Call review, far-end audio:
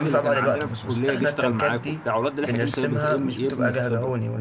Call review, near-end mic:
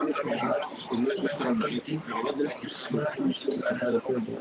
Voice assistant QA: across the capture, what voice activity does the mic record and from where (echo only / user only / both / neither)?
echo only